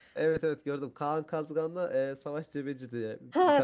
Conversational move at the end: taking over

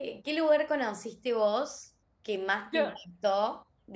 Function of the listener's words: listening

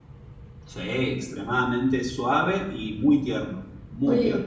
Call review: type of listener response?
taking over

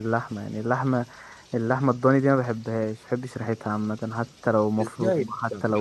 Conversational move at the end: taking over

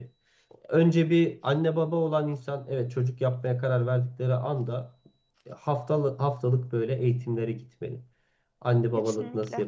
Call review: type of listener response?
listening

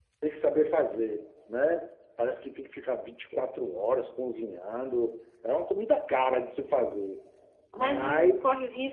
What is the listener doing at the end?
taking over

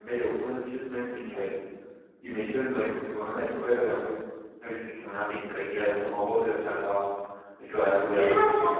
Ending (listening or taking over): taking over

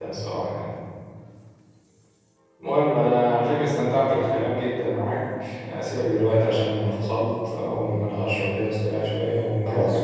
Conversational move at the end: taking over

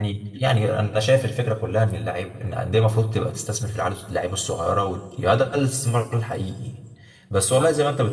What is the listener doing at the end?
listening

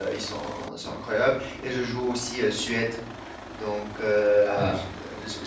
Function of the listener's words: listening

